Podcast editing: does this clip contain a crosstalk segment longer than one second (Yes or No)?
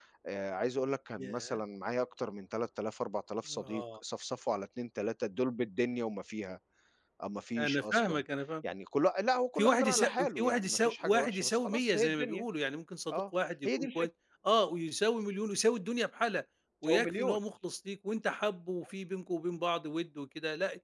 Yes